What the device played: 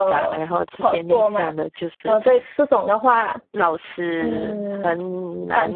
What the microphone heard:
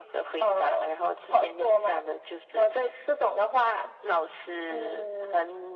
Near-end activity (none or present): none